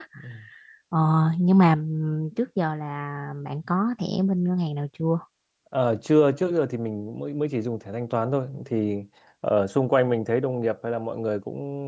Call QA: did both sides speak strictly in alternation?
Yes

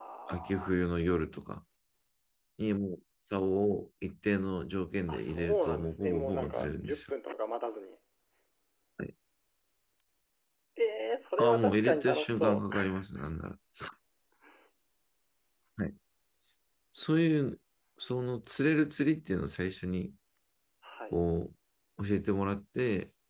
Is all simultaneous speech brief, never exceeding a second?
No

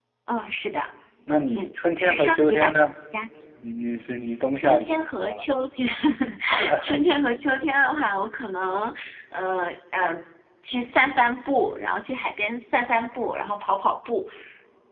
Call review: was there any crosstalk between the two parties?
Yes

